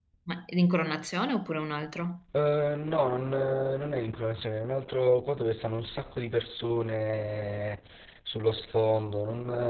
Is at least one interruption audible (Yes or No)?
No